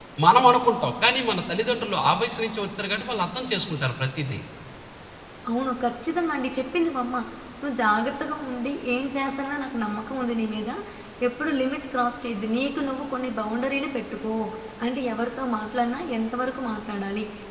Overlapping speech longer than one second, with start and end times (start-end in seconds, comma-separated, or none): none